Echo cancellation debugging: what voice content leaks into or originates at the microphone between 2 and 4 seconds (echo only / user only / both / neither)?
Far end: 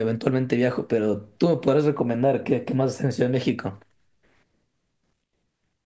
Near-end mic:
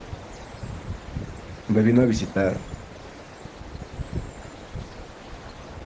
user only